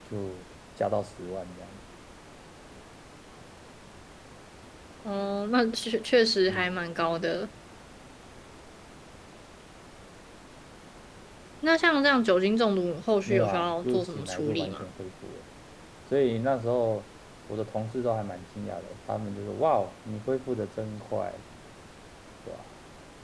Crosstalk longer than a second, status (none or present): present